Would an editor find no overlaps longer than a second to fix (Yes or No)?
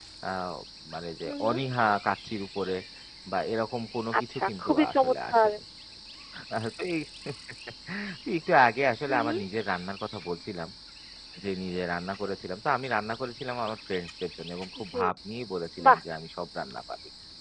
No